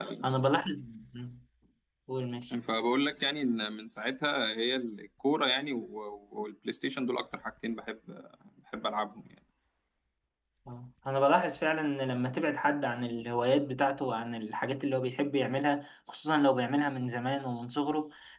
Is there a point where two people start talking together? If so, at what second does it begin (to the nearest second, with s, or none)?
none